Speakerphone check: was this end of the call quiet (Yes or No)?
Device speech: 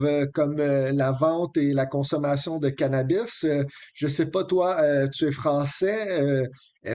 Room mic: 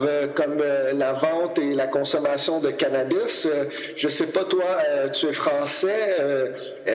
Yes